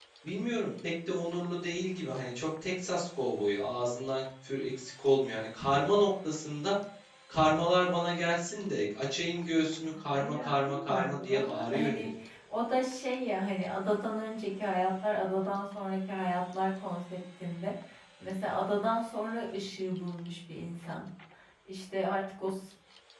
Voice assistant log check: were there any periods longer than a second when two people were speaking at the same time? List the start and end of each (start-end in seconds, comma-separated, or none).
10.2-12.1